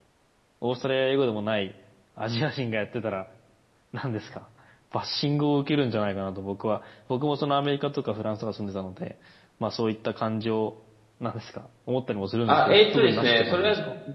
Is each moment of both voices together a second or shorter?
No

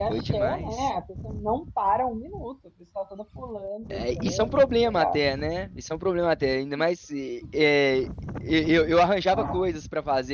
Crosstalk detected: Yes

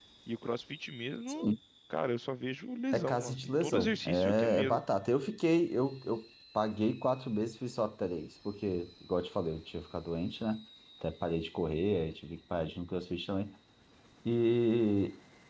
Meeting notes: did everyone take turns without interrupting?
No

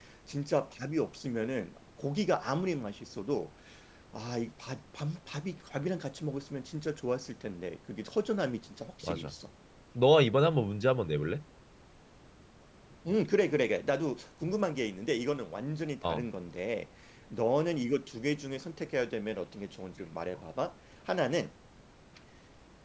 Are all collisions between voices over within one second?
Yes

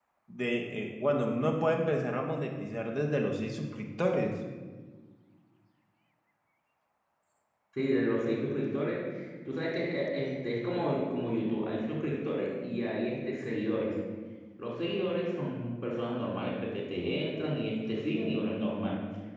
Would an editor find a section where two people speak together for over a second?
No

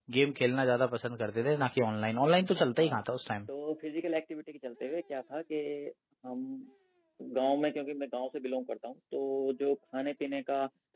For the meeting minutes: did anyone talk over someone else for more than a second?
No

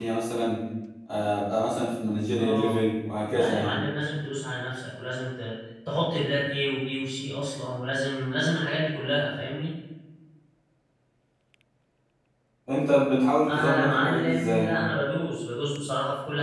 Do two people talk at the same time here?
Yes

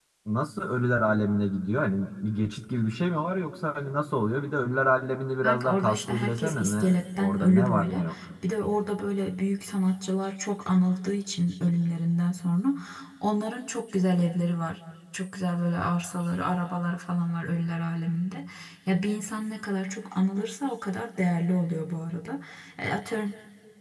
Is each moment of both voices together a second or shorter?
No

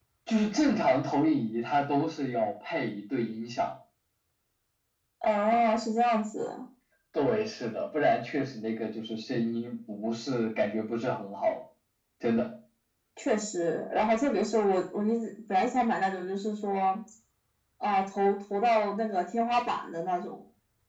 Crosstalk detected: No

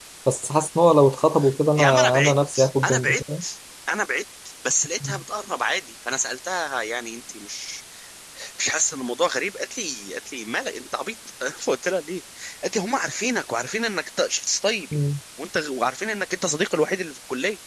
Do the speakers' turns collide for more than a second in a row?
Yes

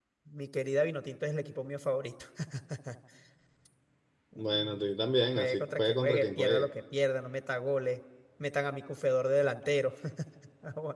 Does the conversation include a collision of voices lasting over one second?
Yes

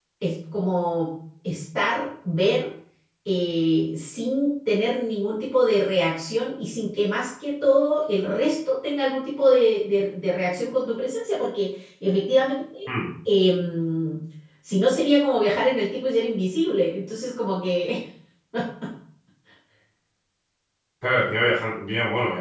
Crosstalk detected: No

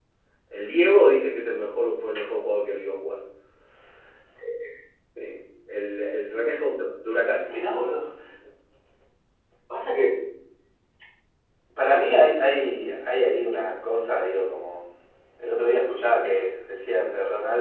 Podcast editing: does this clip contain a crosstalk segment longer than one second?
No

